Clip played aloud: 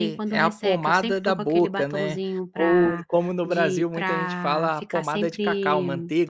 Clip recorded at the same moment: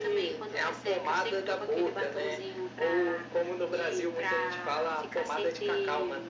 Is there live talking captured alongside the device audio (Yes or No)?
No